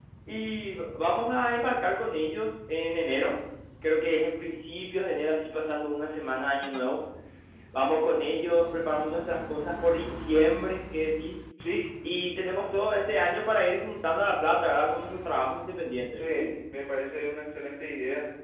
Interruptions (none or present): none